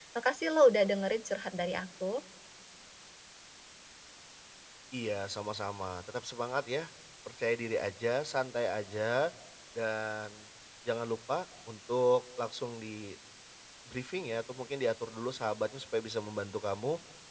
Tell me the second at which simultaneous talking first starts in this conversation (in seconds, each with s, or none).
none